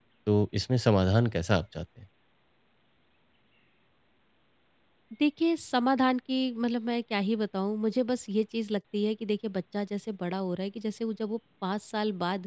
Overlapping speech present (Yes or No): No